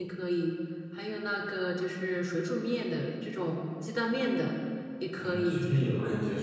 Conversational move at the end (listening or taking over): taking over